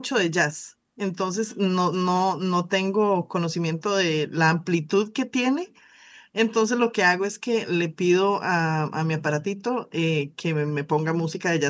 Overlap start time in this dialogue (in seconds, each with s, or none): none